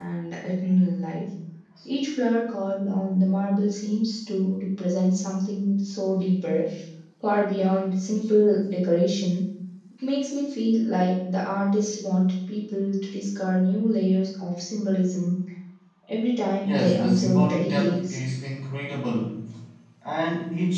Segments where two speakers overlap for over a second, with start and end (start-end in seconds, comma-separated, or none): 16.6-18.2